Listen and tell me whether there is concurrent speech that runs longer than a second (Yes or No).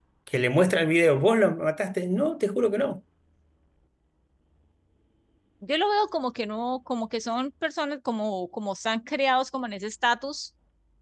No